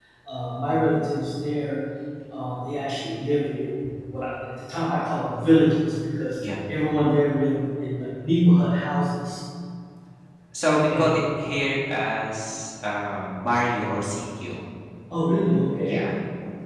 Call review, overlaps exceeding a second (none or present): none